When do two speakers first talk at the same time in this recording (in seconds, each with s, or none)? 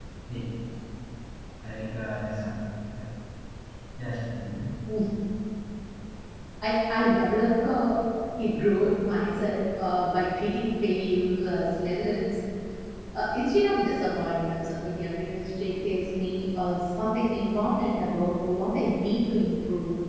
none